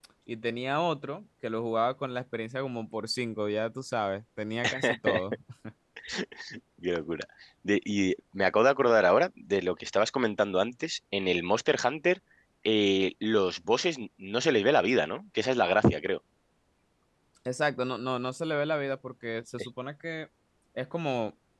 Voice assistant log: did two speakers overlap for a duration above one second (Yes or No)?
No